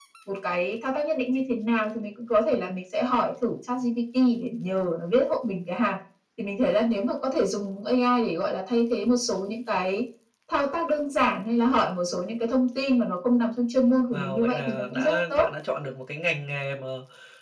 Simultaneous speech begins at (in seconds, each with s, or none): 14.1 s